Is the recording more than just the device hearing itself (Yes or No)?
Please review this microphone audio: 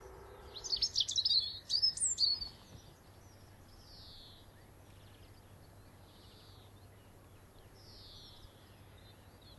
No